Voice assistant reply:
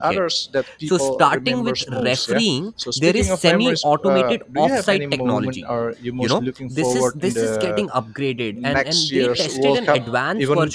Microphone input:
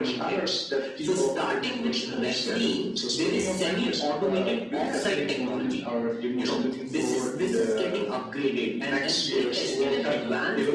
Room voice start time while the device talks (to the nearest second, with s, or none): none